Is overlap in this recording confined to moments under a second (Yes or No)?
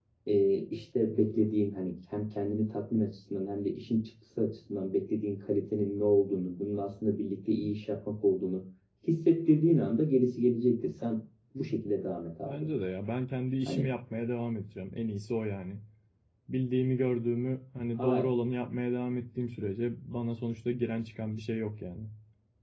Yes